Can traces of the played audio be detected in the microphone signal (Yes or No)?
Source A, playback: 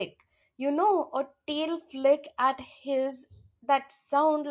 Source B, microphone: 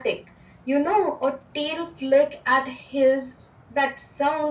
Yes